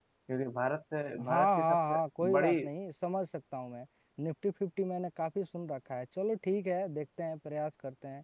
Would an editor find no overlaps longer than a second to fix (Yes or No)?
No